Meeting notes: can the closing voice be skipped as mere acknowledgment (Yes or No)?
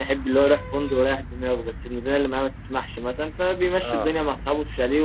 Yes